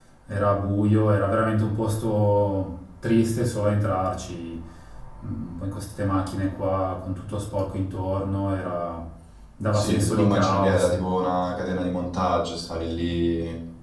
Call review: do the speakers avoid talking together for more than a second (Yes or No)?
No